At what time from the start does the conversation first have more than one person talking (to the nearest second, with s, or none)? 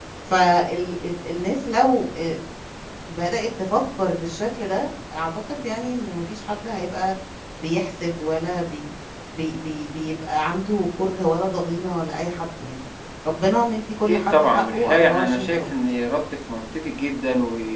14 s